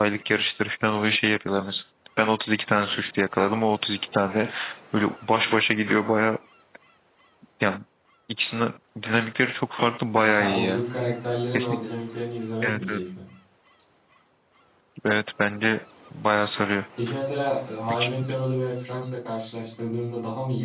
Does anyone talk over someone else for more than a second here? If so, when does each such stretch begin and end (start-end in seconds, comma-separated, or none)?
none